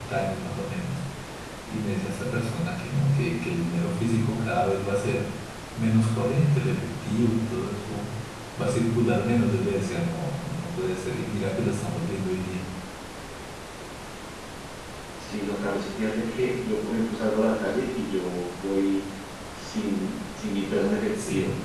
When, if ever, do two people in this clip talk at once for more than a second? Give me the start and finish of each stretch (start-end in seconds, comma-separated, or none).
none